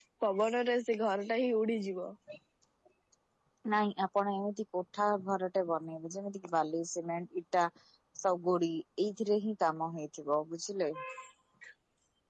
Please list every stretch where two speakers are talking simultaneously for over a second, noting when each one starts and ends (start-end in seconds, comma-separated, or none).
none